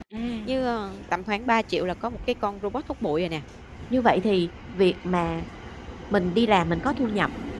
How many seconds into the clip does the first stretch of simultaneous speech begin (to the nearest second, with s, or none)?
none